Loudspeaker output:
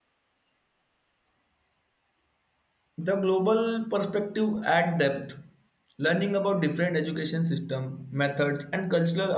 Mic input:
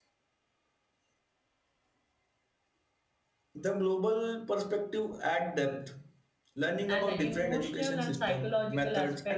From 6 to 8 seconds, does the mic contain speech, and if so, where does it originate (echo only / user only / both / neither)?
both